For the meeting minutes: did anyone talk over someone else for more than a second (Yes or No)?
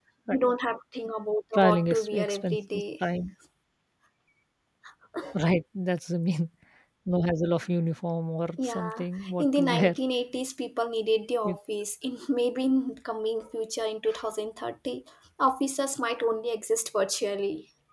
Yes